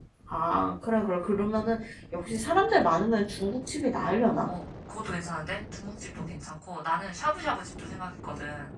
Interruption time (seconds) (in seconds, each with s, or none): none